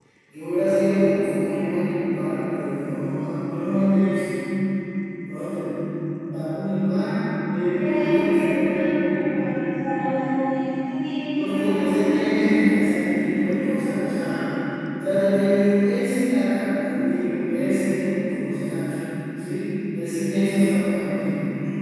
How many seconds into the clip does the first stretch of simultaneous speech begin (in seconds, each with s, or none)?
7.8 s